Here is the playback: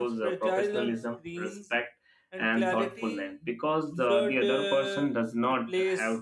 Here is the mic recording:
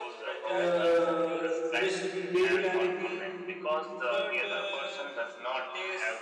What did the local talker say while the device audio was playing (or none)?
uh, misleading